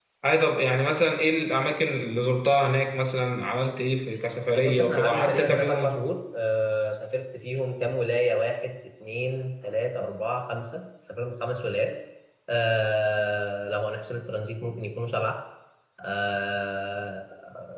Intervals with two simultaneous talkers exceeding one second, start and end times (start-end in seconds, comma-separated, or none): 4.5-5.9